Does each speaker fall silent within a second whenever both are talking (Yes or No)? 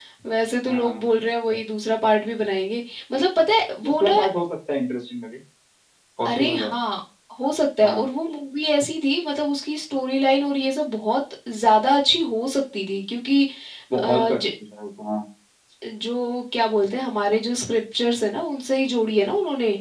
Yes